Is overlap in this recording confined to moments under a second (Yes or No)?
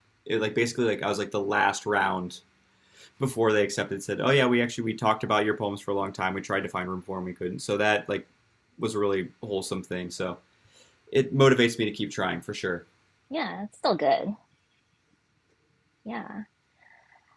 Yes